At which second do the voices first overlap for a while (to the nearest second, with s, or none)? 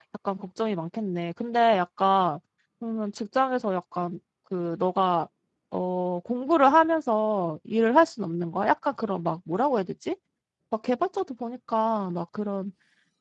none